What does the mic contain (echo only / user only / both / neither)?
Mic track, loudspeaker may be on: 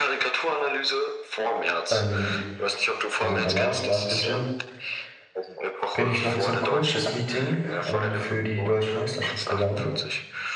both